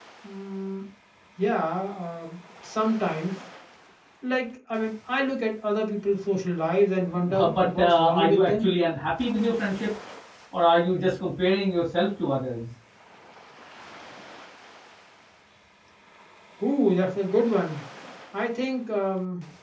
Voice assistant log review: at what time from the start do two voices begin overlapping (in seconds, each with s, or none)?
7.3 s